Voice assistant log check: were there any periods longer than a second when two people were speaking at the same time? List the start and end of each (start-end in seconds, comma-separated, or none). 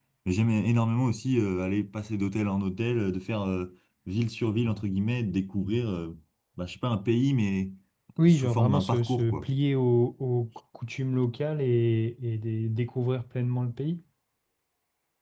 8.3-9.5